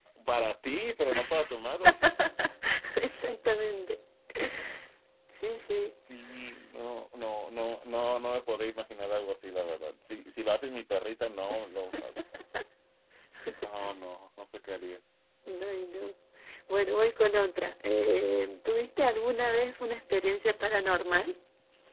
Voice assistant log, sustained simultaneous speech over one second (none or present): none